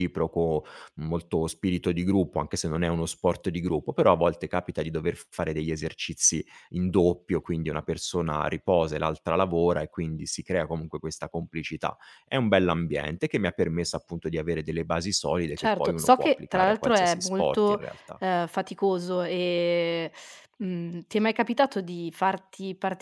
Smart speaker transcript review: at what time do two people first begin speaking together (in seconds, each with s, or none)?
15.6 s